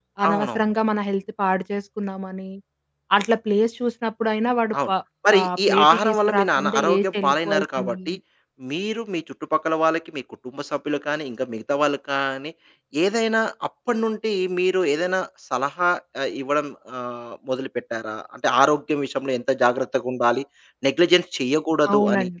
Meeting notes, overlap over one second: present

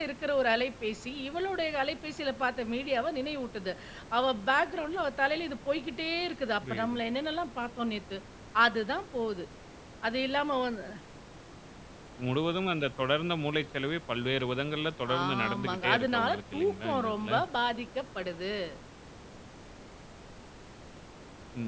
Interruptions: present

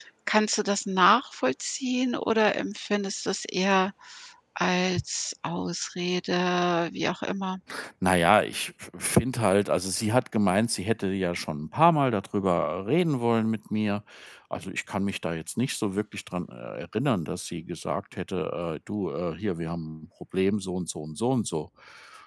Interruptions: none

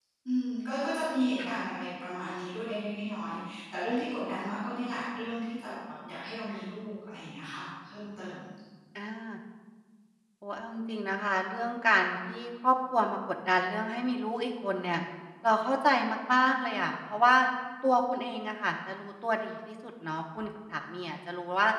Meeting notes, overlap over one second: none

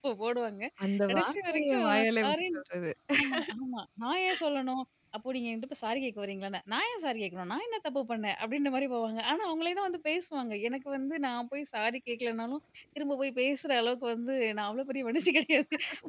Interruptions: present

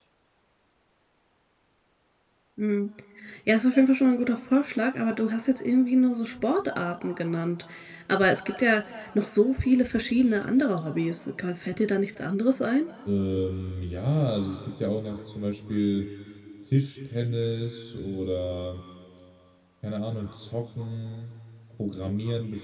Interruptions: none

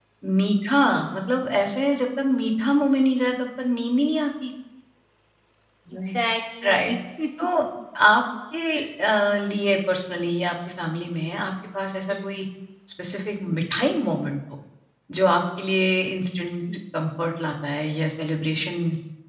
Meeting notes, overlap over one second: none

